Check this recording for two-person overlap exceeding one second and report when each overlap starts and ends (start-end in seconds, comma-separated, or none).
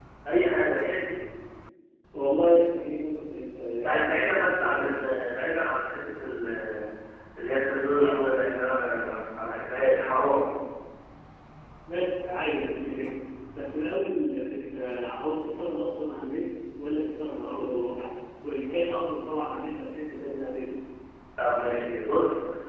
3.8-5.0